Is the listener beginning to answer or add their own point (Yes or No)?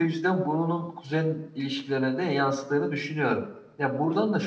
No